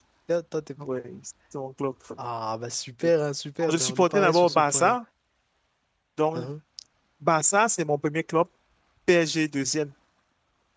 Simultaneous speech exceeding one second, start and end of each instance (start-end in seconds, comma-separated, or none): 3.6-5.0